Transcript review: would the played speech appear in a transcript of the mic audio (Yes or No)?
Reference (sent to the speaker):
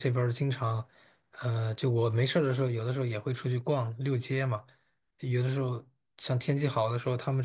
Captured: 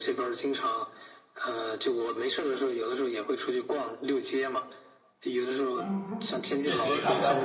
Yes